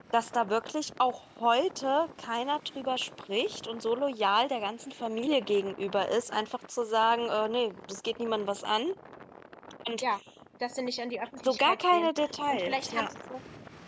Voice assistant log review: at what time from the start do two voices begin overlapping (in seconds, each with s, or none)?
11.4 s